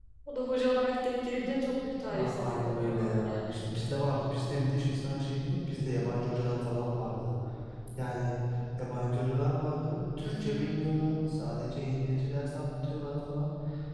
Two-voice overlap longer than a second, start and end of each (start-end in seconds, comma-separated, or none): 2.1-3.6